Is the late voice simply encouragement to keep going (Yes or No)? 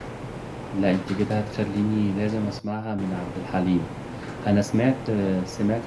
Yes